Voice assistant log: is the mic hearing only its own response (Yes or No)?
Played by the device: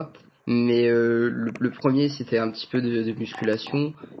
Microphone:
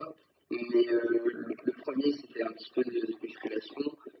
Yes